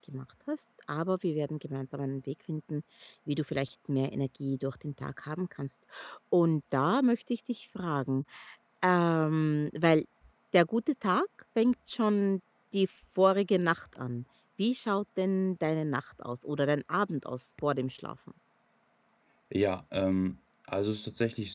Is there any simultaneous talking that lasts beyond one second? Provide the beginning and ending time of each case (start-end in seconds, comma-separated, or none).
none